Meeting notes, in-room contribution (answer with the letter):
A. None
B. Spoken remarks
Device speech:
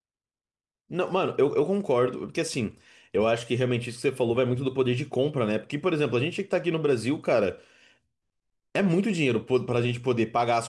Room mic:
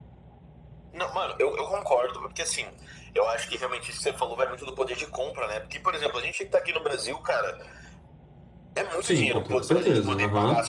B